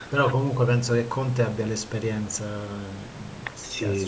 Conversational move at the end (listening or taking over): taking over